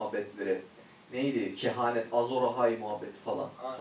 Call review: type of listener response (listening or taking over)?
taking over